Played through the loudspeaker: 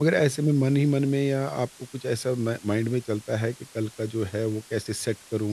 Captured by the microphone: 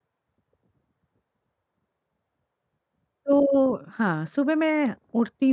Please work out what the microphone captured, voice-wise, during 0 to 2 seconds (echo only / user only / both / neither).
neither